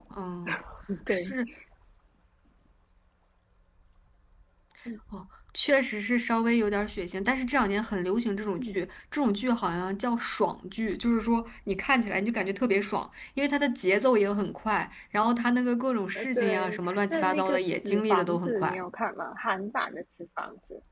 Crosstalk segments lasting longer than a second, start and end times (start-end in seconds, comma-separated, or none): 16.2-18.8